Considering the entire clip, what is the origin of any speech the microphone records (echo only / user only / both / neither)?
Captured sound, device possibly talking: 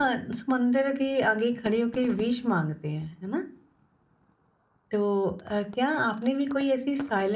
user only